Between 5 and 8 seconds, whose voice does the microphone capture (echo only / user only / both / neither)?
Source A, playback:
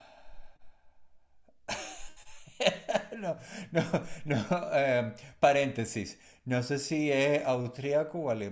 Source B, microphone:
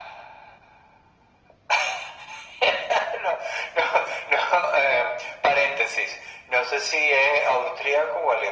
echo only